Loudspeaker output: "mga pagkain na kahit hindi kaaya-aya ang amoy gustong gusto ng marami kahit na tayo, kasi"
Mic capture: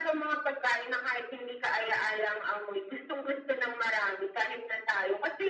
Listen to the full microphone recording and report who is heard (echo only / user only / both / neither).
echo only